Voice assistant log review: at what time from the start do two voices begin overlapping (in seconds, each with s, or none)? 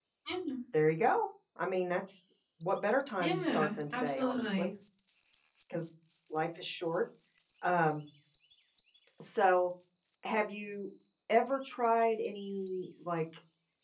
3.2 s